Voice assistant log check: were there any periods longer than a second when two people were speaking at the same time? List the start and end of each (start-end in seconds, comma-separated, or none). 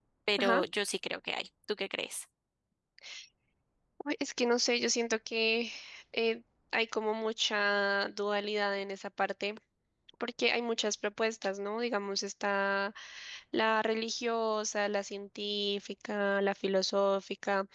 none